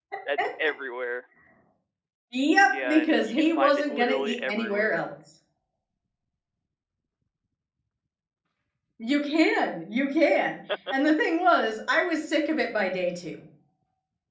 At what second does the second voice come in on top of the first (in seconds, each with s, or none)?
2.7 s